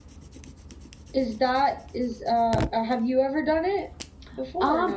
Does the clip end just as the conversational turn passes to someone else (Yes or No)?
Yes